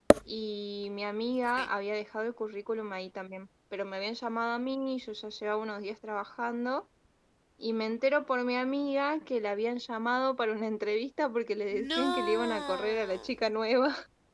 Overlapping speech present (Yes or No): Yes